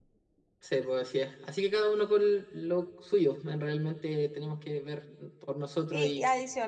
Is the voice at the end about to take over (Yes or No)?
Yes